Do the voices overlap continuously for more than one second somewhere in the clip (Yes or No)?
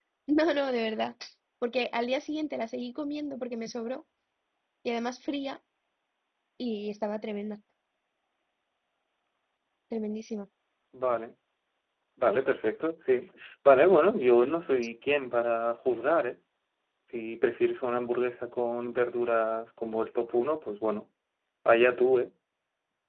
No